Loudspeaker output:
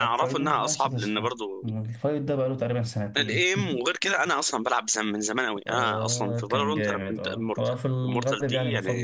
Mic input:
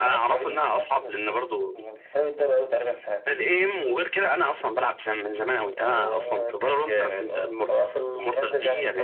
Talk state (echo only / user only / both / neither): echo only